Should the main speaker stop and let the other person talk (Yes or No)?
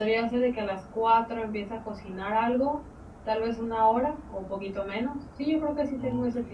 Yes